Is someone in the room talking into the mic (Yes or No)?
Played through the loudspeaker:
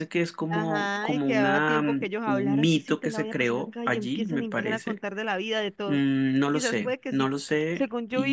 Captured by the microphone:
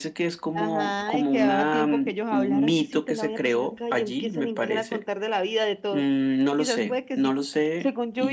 No